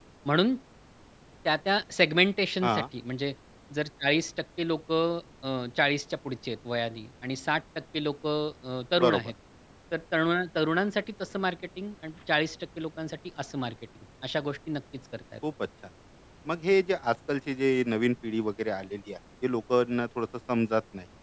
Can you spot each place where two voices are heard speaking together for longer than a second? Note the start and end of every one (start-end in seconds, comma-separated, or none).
none